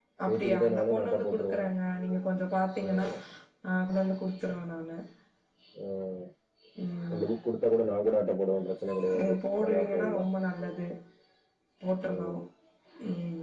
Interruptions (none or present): present